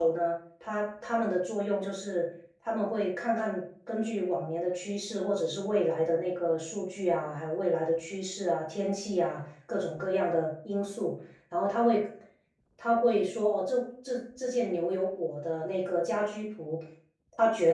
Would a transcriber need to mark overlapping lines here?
No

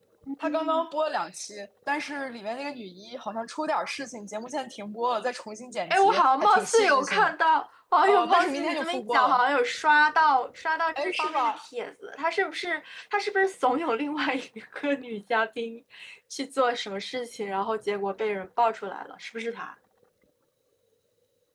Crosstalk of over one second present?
Yes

